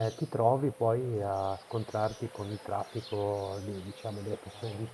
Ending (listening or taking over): listening